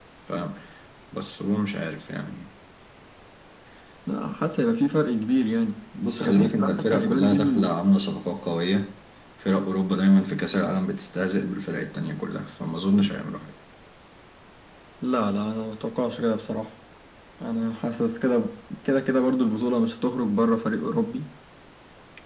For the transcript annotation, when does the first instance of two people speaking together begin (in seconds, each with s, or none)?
6.2 s